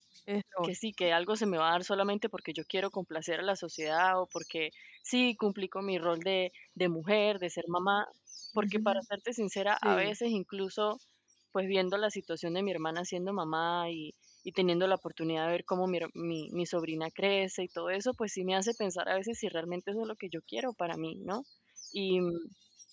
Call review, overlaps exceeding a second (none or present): none